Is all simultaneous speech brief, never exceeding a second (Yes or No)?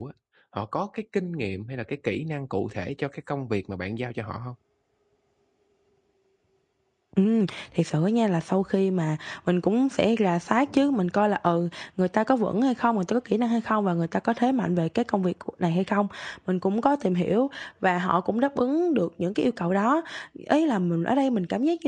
Yes